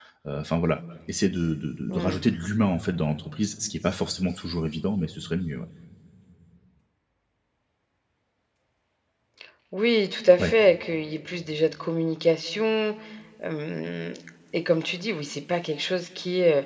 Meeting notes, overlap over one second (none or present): none